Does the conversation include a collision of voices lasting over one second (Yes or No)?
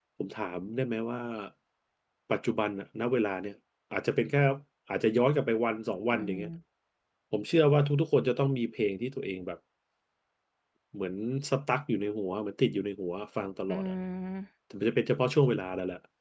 No